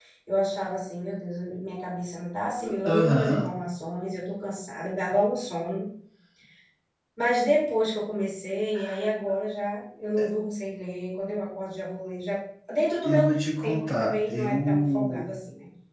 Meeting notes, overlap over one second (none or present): present